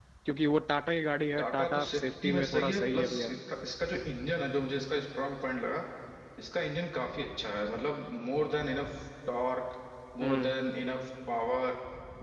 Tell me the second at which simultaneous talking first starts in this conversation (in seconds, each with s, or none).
1.4 s